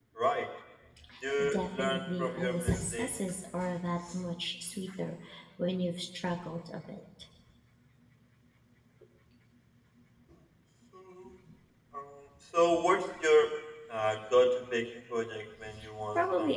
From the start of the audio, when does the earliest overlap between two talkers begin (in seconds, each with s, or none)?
1.5 s